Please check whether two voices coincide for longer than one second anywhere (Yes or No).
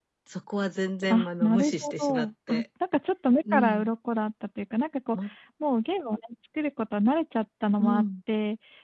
Yes